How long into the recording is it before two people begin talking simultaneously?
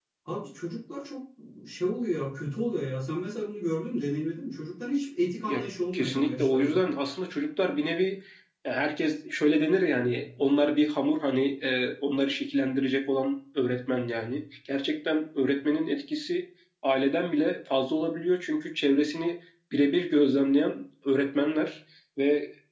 5 s

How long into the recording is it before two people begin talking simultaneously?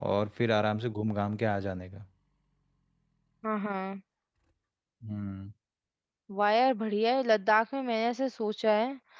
none

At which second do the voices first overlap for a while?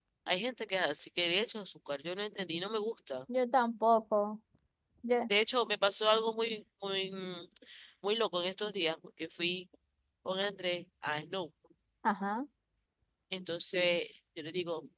none

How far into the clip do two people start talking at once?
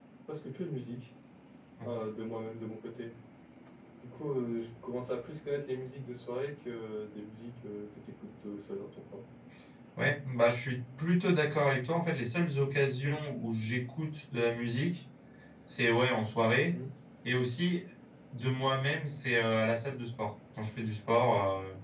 none

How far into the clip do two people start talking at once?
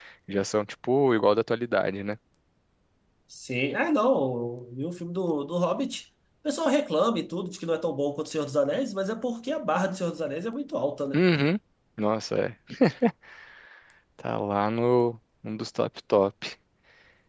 none

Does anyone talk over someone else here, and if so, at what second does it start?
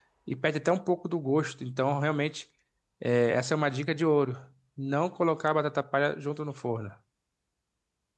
none

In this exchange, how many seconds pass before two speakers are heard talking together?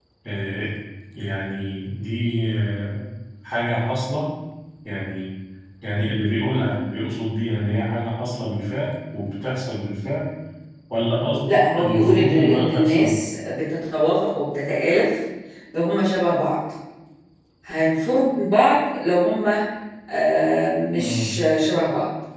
11 s

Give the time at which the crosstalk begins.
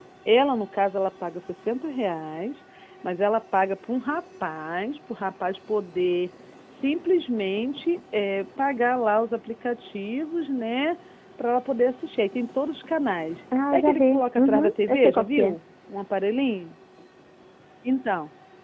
14 s

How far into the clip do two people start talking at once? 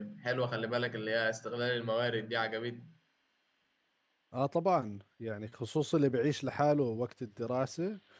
none

